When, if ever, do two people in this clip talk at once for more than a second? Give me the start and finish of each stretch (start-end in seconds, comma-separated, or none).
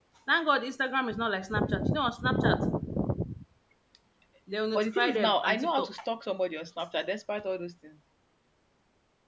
4.7-5.9